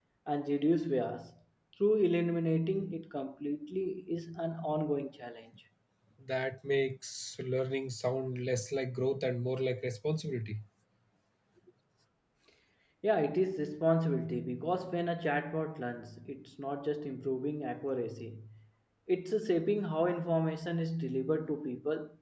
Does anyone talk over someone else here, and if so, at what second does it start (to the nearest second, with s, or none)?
none